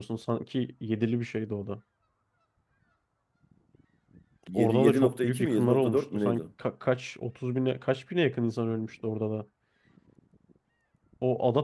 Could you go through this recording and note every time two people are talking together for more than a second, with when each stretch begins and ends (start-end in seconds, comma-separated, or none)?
4.5-6.4